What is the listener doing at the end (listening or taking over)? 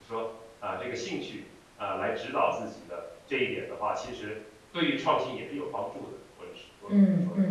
taking over